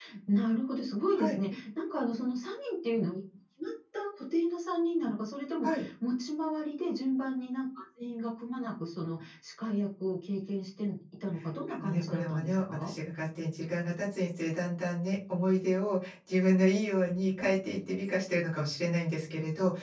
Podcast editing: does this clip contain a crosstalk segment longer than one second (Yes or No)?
Yes